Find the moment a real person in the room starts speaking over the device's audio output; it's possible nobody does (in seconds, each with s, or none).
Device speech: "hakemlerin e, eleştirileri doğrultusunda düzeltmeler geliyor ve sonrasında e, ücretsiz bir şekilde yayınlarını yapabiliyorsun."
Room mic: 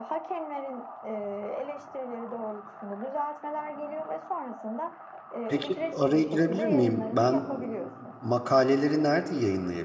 5.5 s